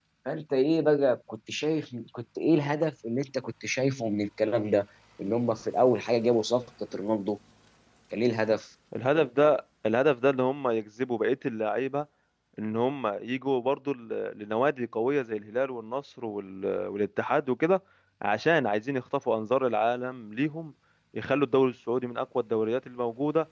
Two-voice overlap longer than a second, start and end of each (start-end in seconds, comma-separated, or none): none